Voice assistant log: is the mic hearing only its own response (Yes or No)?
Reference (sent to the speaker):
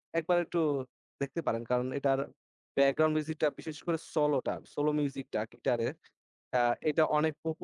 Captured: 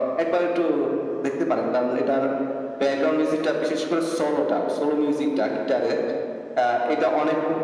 Yes